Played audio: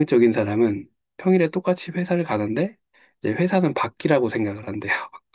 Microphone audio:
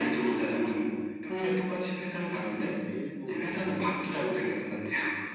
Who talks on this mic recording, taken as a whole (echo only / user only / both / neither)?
both